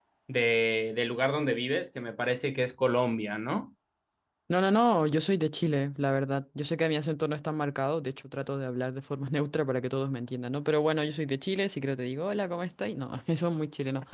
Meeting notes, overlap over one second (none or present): none